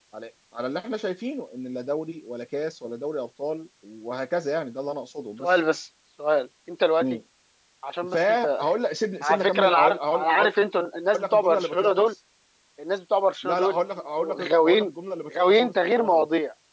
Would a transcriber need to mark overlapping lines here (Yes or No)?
Yes